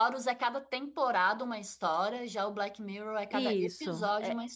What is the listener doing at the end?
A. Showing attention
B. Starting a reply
B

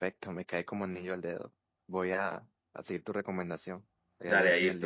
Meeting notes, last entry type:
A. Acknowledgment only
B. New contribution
B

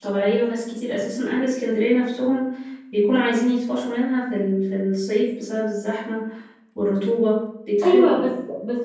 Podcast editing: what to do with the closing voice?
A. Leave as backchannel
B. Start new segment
B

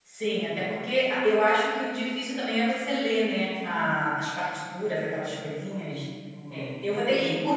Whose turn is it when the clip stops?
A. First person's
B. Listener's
A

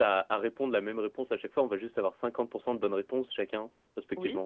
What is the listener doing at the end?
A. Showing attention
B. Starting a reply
A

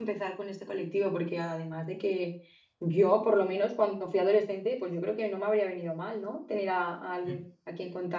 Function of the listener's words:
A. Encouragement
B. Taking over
A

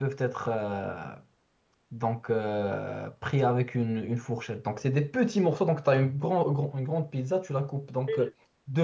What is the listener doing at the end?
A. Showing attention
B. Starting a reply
A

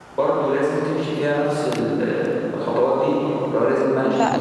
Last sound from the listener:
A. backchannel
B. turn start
B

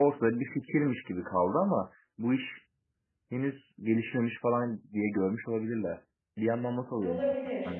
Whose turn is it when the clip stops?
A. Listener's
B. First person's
A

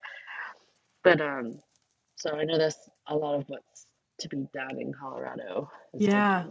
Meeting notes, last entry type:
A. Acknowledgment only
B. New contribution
B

